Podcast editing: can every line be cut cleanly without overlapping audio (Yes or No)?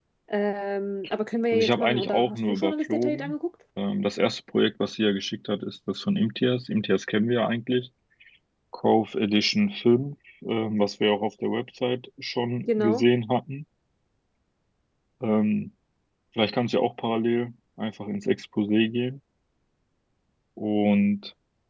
No